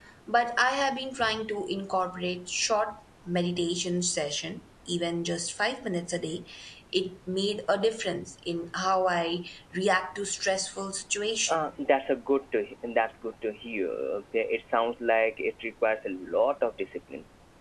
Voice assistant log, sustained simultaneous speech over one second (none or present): none